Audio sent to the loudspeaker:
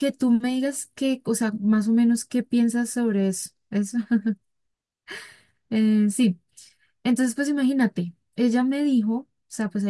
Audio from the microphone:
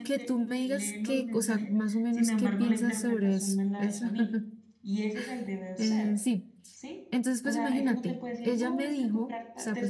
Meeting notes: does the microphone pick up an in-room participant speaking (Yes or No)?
Yes